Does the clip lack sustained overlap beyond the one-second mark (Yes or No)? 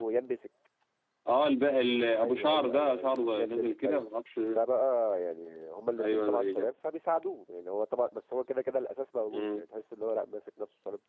No